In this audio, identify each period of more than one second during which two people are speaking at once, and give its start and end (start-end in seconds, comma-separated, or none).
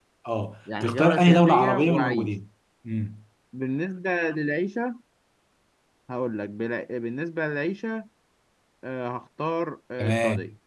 0.8-2.3